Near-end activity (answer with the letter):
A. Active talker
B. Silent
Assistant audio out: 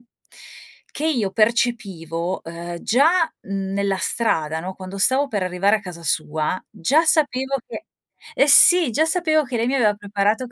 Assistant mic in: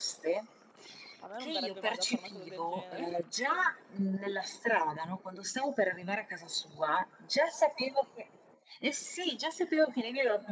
A